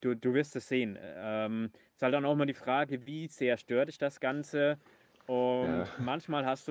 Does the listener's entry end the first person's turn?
No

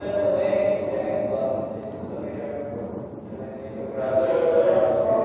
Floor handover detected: Yes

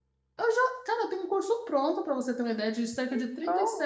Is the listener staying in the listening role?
Yes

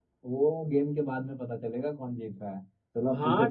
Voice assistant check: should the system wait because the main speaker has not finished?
No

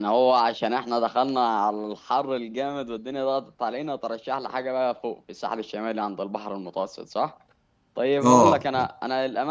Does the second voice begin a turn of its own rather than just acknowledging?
No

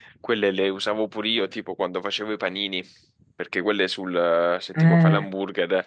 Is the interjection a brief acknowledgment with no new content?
Yes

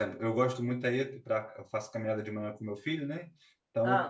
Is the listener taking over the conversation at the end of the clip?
No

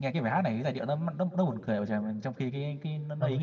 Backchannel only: No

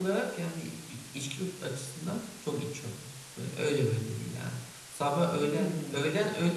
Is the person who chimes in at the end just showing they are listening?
Yes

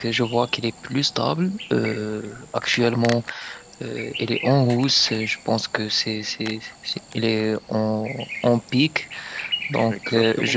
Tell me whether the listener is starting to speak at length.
No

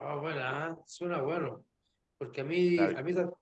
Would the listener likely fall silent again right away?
Yes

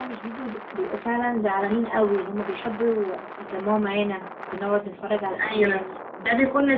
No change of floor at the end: No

